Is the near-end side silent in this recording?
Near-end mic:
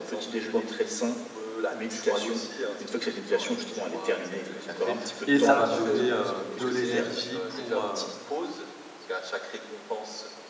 No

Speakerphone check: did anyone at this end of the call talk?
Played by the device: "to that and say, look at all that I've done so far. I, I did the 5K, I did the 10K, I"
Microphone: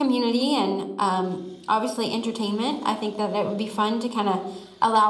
Yes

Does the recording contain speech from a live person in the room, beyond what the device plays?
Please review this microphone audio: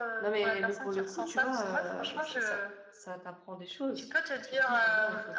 Yes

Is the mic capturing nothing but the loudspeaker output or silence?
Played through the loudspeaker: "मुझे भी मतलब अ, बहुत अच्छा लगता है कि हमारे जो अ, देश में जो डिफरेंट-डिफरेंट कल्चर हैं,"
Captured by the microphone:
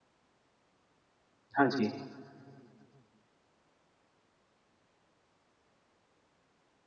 No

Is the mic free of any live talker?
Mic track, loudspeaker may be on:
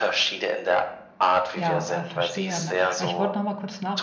No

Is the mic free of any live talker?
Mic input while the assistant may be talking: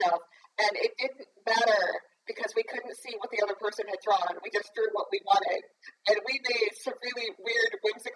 Yes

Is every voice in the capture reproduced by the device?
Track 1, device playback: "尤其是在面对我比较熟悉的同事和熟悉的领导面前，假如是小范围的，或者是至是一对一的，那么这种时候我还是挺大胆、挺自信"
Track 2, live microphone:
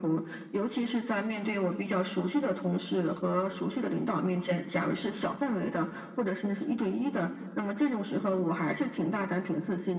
Yes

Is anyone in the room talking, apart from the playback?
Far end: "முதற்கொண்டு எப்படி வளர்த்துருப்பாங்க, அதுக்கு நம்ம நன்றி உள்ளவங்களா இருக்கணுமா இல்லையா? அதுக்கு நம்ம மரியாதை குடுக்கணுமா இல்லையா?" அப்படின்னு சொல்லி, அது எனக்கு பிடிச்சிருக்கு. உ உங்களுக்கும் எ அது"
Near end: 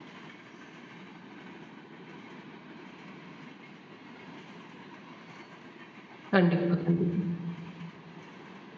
Yes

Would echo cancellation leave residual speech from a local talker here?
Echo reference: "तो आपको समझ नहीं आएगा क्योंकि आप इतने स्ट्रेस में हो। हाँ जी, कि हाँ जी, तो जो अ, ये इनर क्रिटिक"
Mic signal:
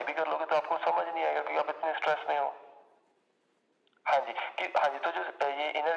No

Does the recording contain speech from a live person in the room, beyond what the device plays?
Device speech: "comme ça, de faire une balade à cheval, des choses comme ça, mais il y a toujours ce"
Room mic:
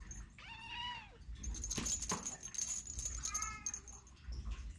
No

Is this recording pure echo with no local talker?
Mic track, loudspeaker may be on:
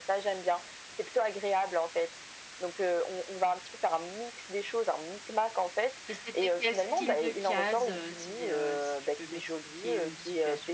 No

